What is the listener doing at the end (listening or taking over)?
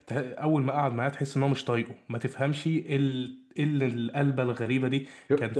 listening